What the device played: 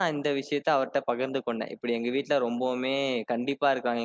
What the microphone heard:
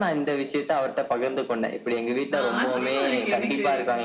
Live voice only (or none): ஆ ஆச்சரியமா இருக்கு எனக்கு.